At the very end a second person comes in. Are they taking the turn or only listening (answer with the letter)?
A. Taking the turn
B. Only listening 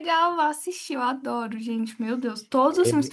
B